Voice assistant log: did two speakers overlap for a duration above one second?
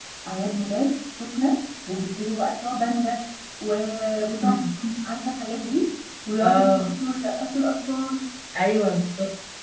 No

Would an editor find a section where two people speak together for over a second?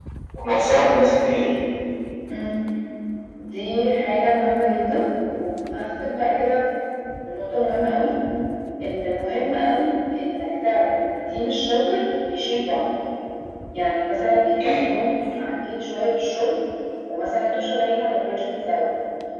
No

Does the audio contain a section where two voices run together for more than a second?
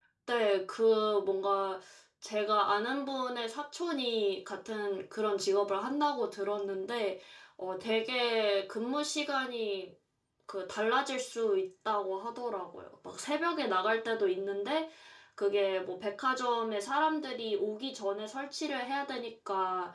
No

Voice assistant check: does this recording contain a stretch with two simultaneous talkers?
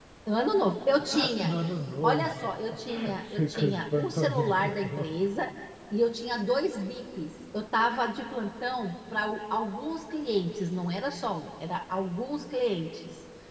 Yes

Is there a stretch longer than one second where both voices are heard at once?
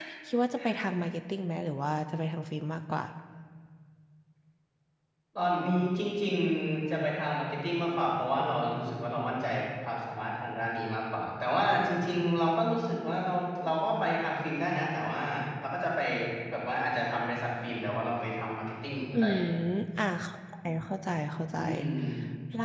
No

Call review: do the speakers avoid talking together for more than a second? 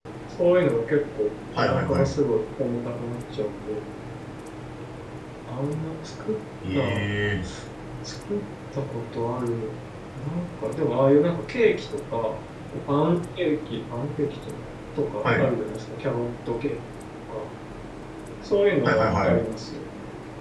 Yes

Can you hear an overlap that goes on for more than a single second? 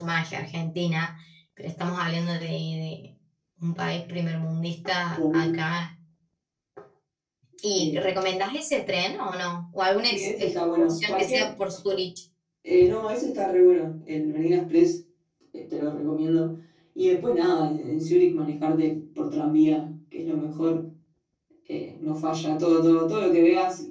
Yes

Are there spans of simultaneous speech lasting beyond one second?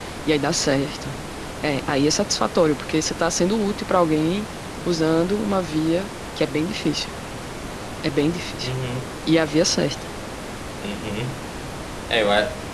No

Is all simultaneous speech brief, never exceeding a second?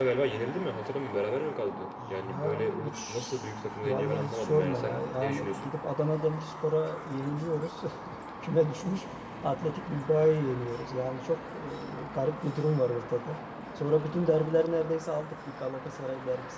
No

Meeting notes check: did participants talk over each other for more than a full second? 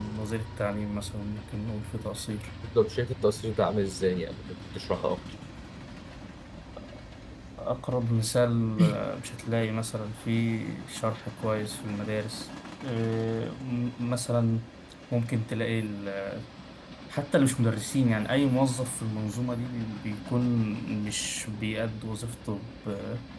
No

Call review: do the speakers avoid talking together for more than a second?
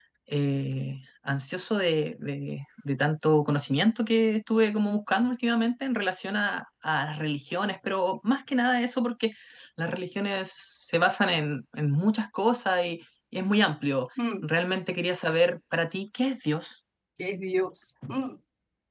Yes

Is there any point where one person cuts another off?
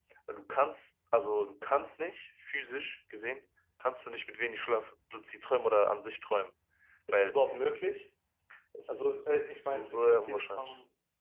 Yes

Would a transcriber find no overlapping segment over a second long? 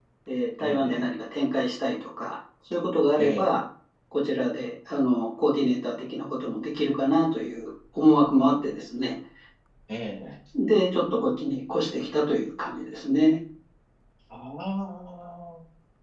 Yes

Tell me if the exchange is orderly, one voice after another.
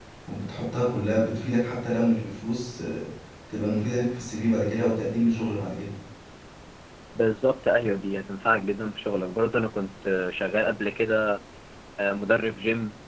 Yes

